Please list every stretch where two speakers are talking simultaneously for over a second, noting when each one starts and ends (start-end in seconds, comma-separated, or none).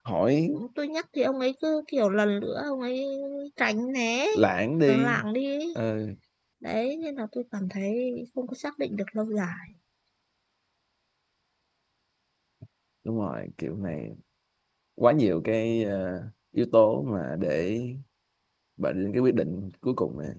none